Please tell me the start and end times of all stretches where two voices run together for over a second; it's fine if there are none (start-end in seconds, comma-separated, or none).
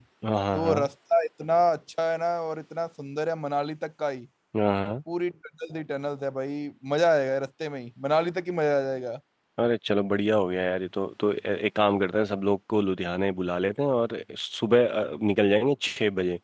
none